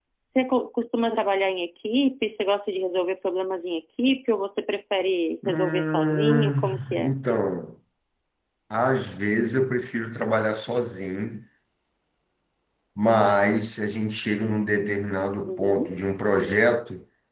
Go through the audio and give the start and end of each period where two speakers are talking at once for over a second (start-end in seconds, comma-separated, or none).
5.4-7.1